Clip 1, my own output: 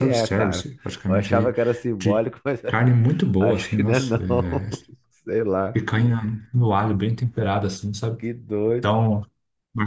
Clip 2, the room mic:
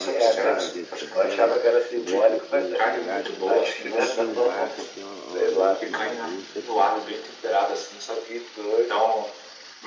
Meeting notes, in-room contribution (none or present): present